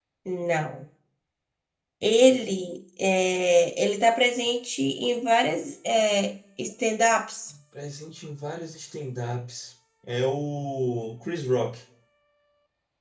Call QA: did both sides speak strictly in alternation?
Yes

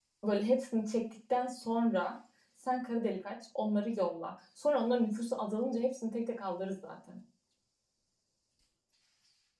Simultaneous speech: No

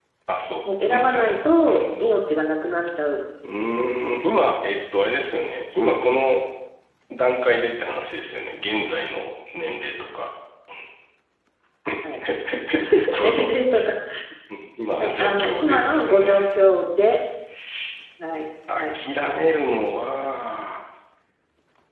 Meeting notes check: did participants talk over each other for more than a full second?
Yes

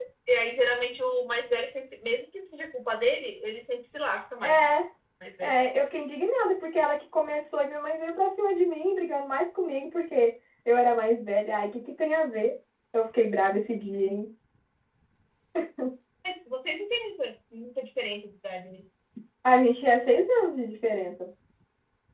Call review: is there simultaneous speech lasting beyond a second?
No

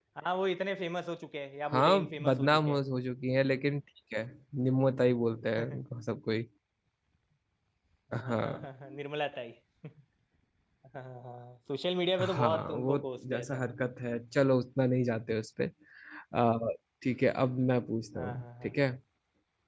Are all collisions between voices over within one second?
No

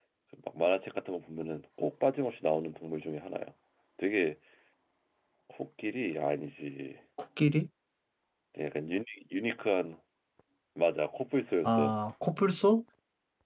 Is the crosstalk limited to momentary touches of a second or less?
Yes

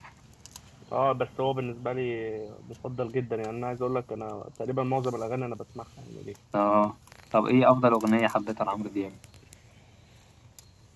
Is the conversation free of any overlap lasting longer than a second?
Yes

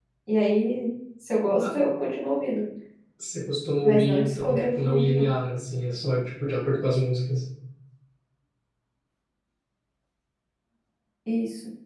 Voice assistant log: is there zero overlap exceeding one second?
No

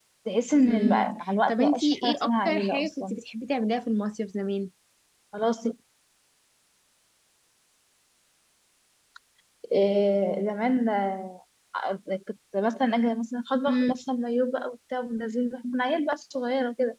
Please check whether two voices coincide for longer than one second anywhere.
Yes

